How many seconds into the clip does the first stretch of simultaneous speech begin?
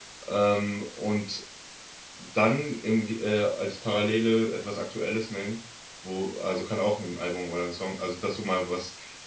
none

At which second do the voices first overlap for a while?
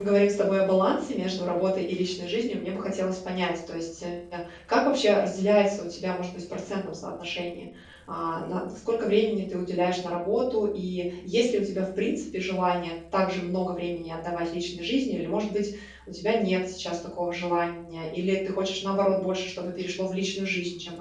none

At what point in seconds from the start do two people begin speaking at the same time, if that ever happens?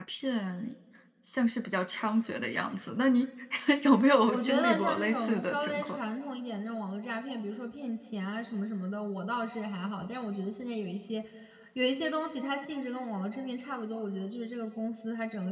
4 s

